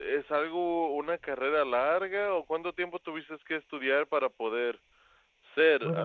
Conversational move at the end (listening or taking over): taking over